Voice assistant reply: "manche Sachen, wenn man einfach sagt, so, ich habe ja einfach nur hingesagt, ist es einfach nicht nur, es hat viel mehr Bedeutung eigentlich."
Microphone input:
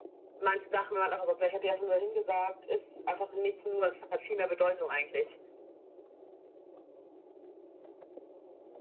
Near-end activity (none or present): none